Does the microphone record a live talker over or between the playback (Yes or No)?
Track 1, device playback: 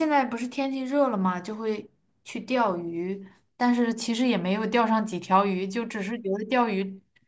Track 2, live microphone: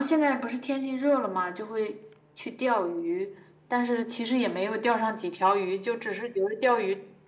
No